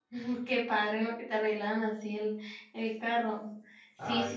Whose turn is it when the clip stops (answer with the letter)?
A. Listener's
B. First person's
B